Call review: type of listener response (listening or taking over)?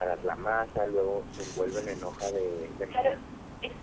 taking over